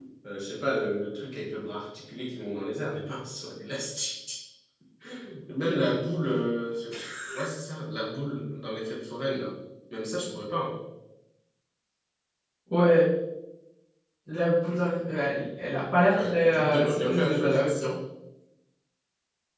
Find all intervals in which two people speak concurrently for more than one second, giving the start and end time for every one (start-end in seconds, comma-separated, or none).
16.1-17.8